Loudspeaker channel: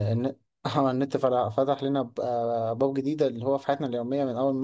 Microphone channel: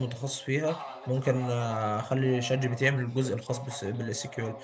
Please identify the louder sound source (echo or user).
user